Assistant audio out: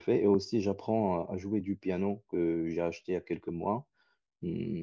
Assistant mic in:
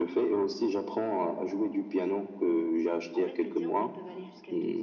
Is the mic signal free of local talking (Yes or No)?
No